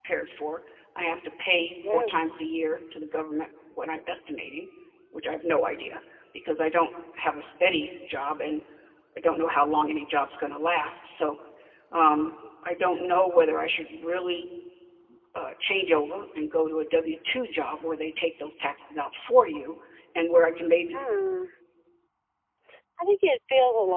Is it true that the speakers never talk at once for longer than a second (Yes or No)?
Yes